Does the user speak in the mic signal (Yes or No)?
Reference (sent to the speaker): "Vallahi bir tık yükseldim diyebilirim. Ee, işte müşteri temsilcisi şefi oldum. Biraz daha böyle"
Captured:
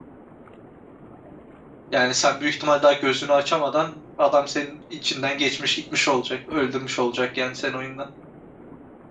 Yes